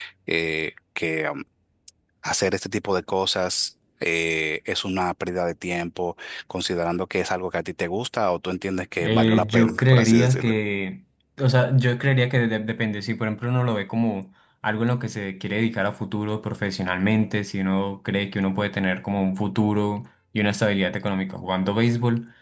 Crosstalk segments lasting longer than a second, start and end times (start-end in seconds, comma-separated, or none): 9.0-10.6